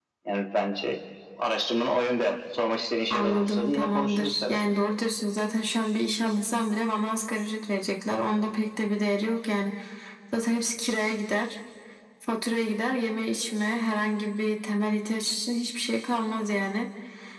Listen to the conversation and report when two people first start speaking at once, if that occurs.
3.1 s

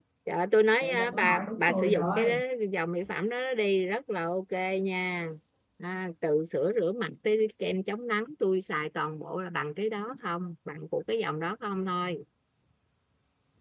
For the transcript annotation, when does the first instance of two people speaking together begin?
0.8 s

